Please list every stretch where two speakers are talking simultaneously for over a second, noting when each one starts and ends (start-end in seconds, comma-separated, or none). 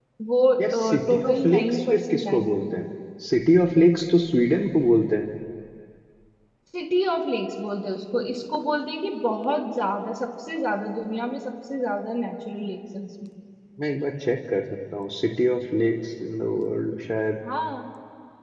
0.6-2.7